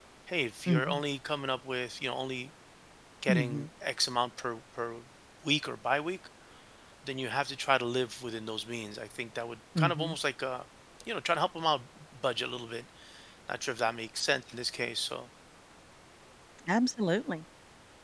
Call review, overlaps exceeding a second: none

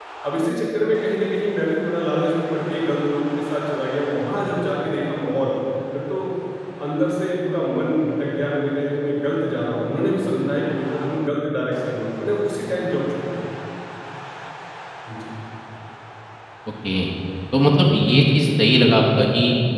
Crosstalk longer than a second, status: none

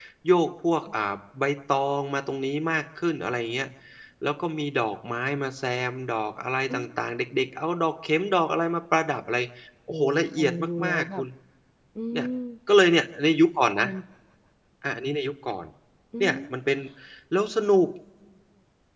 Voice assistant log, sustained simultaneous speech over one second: present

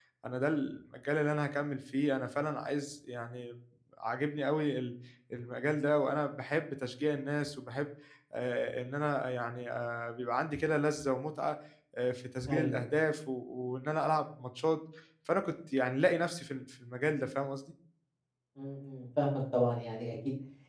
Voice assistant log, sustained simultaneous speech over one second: none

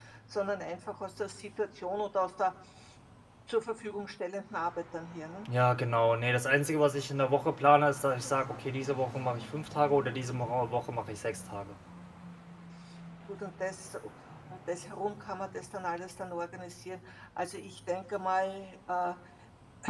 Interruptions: none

